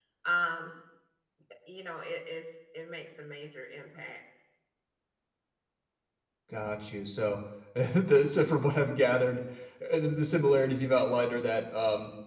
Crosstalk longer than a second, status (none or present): none